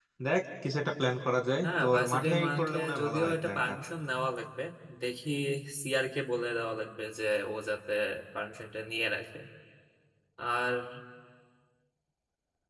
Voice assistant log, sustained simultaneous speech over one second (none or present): present